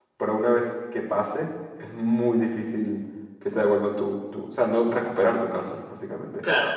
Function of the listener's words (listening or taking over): taking over